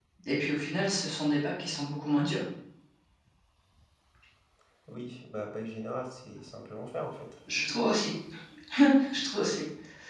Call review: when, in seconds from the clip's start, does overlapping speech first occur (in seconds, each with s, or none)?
none